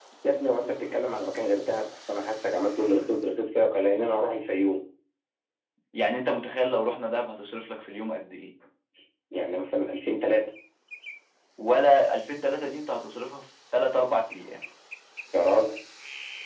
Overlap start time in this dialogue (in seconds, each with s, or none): none